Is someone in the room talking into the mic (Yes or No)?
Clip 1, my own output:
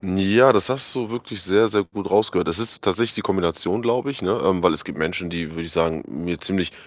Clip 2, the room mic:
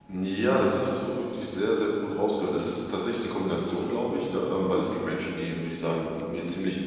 No